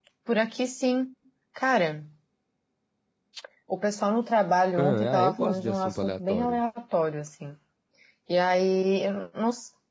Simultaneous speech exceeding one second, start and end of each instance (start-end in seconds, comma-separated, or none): 4.8-6.6